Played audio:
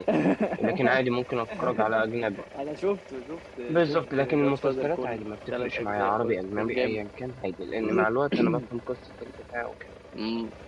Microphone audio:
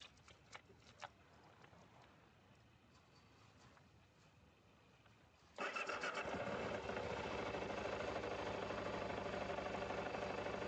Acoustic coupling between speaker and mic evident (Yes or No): No